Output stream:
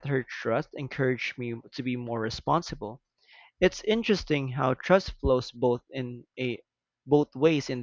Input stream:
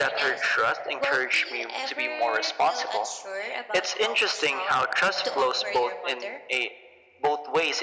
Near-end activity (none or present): present